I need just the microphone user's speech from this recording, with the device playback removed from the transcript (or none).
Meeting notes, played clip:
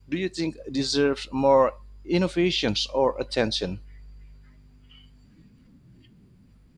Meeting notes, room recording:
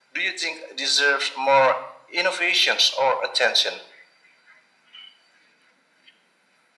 none